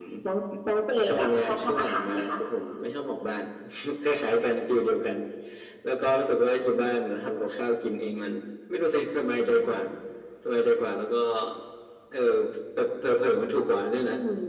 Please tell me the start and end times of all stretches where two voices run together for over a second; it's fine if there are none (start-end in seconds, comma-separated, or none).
1.1-2.4